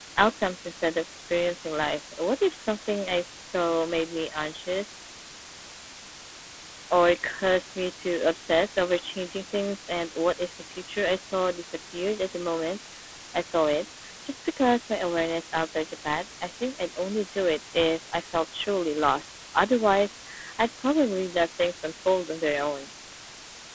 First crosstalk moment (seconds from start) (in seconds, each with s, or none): none